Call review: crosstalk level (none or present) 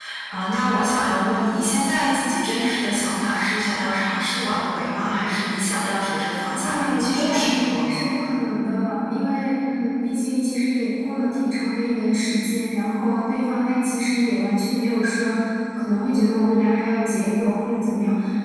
present